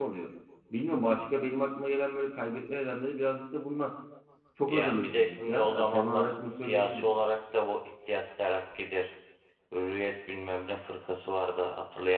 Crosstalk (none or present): present